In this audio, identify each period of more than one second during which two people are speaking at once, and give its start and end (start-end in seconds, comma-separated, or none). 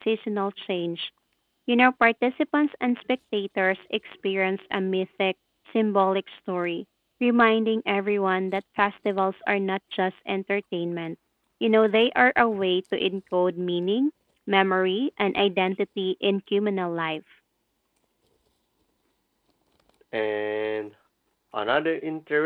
none